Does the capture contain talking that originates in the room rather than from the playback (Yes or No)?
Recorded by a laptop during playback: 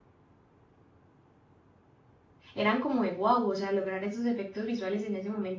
Yes